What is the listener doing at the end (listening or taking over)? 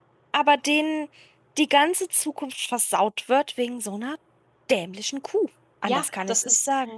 taking over